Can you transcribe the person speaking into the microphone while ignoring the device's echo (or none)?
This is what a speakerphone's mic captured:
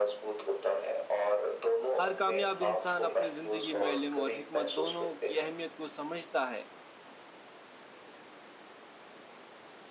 ہر کامیاب انسان اپنی زندگی میں علم اور حکمت دونوں کی اہمیت کو سمجھتا ہے